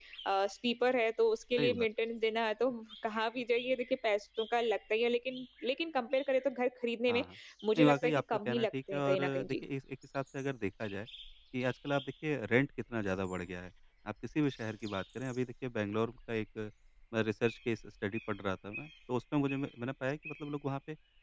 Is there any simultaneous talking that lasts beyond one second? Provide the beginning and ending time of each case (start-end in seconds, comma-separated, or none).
7.8-9.6